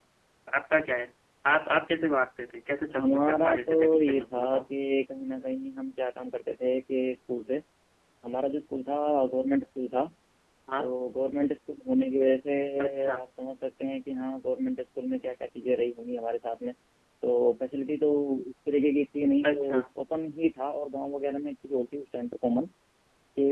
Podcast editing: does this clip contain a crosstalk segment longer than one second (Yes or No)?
Yes